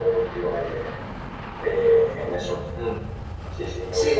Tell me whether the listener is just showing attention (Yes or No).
No